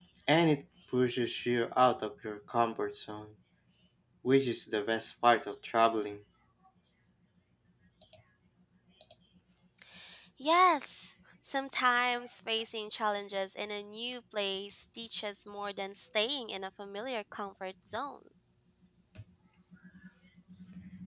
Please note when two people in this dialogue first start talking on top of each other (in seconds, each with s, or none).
none